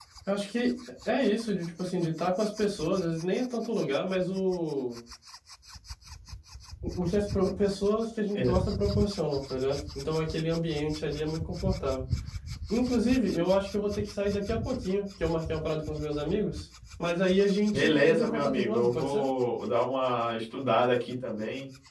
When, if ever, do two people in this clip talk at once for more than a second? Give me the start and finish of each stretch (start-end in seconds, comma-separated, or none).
17.7-19.2